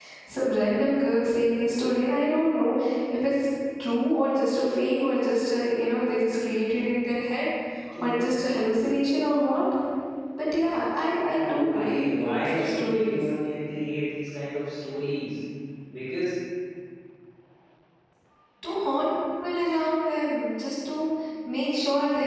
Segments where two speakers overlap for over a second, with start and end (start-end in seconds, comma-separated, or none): 11.3-13.3